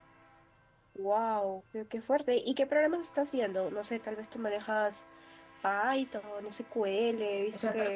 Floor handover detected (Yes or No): Yes